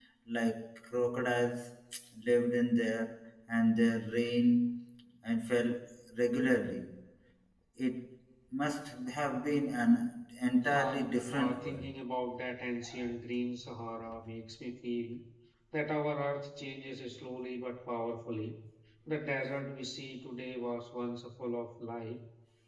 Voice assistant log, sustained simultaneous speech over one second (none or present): present